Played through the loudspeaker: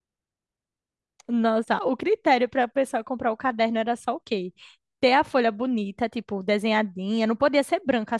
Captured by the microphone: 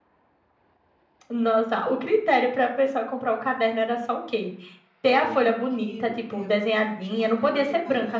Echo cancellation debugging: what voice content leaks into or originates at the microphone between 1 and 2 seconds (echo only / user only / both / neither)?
echo only